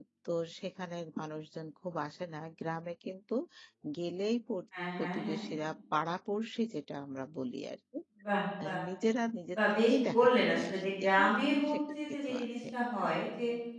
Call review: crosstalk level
present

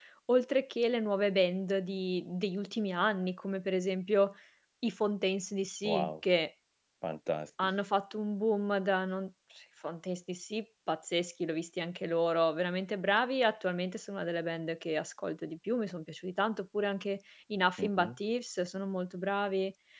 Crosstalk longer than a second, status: none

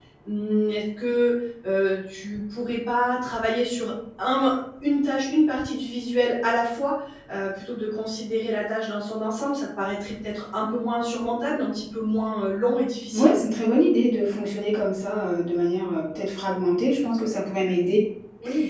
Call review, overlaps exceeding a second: none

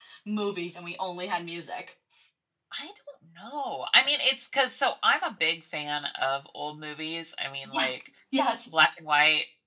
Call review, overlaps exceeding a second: none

